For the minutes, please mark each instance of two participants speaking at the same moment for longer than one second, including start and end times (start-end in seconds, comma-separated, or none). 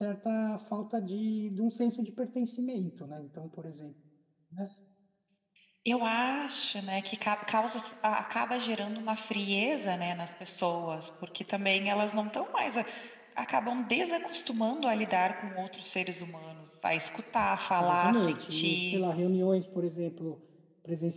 17.8-19.0